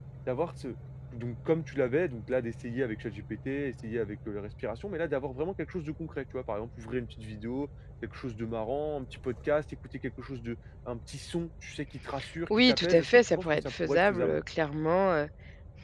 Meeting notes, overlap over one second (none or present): present